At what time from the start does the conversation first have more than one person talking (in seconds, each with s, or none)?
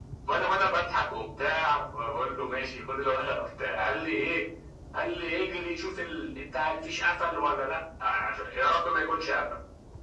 none